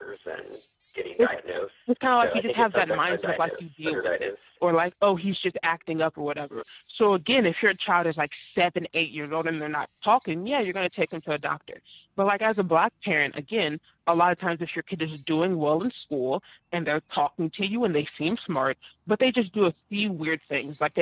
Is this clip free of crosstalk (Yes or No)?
No